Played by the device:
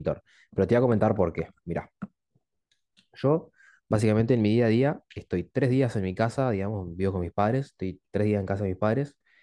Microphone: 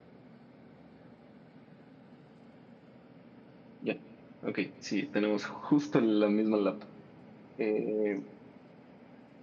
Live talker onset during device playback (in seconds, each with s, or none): 3.8 s